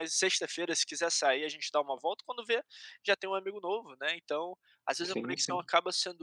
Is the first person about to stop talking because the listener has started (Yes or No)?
No